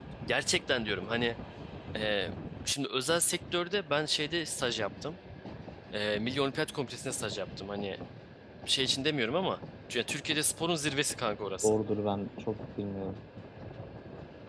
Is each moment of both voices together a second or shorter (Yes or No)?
Yes